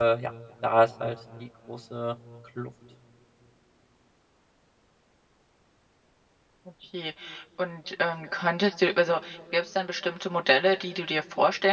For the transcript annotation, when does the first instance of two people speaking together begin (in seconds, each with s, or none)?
none